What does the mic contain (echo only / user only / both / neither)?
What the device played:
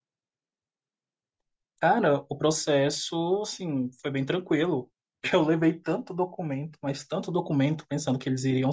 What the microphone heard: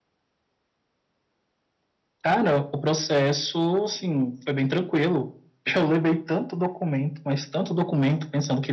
echo only